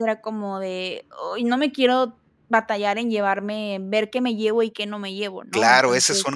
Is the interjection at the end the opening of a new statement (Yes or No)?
Yes